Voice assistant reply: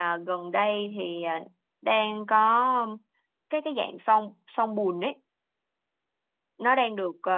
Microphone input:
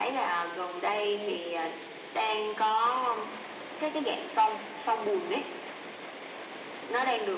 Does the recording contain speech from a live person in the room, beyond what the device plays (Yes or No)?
No